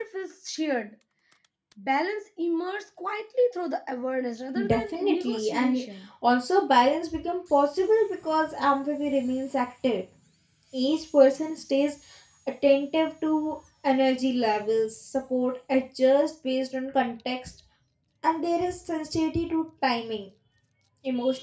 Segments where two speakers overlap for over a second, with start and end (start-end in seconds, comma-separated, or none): 4.7-5.9